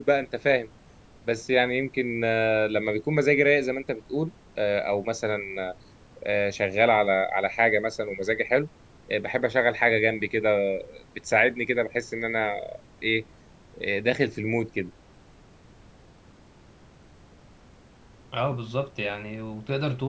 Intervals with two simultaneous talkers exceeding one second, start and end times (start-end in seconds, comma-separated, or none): none